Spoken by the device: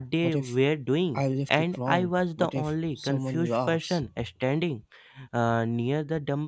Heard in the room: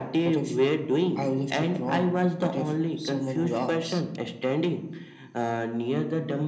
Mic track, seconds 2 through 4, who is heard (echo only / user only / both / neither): echo only